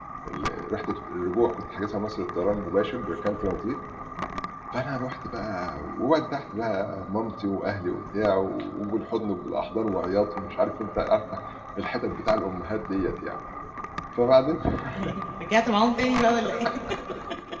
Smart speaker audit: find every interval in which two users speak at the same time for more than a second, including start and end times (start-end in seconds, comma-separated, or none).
none